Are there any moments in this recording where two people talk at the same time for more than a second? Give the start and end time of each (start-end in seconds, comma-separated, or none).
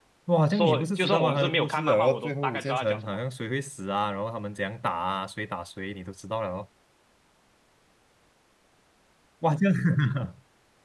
0.5-3.2